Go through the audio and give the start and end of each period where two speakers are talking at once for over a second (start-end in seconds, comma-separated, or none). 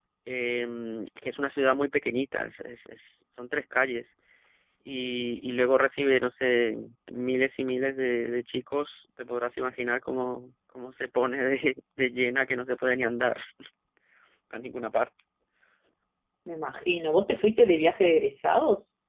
none